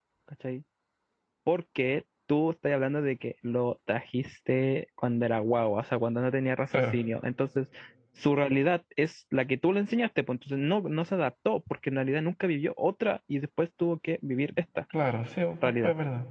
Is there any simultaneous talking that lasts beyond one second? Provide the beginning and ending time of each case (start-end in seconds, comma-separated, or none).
none